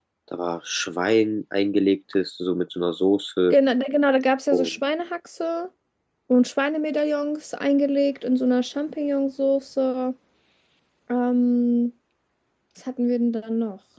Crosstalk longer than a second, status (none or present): none